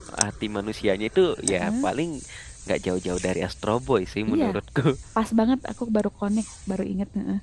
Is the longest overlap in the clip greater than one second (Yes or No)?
No